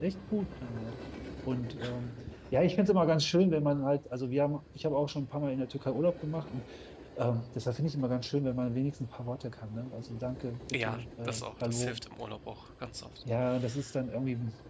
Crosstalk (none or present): present